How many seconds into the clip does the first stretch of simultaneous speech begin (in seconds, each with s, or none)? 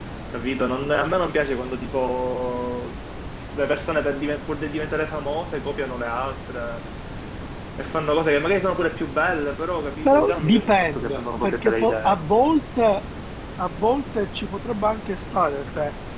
10.0 s